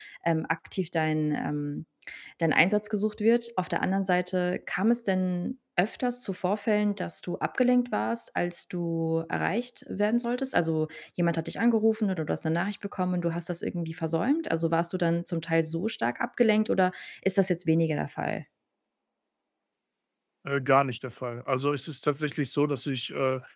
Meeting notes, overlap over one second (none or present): none